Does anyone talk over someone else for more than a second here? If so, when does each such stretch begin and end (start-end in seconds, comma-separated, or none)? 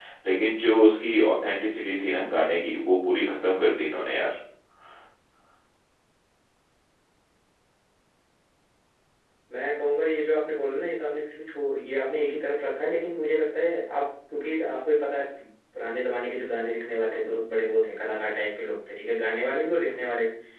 none